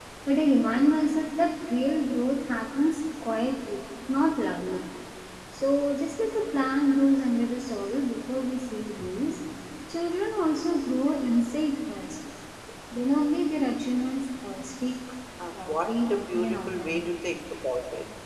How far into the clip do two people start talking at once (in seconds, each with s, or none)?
15.6 s